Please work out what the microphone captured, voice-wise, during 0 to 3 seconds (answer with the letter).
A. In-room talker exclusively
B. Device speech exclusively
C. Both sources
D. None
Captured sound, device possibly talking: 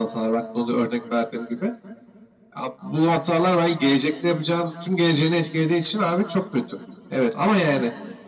B